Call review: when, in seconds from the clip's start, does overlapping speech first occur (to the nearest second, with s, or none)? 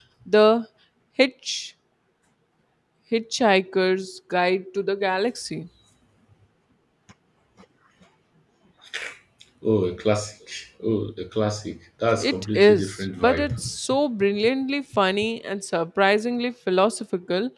12 s